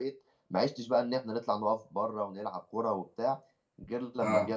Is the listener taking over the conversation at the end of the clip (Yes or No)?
No